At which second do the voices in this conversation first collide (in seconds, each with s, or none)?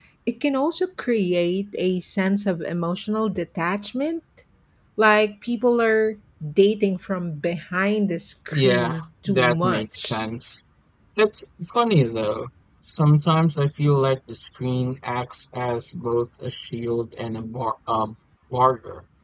8.5 s